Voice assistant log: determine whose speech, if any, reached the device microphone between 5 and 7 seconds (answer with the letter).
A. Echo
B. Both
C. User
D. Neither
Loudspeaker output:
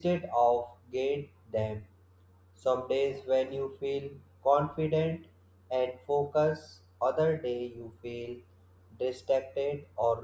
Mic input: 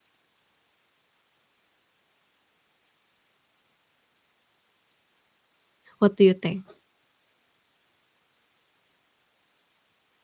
C